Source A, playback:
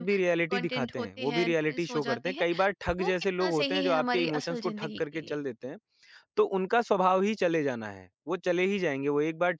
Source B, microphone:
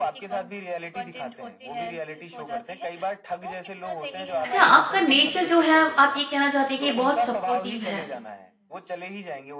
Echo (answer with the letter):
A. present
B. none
A